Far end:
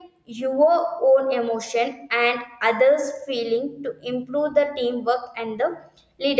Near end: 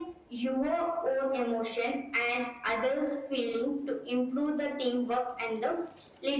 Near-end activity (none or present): none